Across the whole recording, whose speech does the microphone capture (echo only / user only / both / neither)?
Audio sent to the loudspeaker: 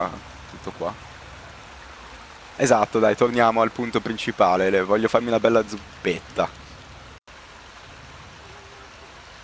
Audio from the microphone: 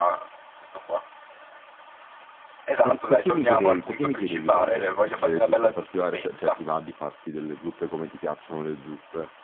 both